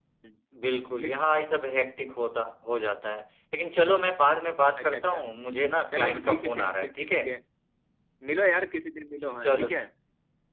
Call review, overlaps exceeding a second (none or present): present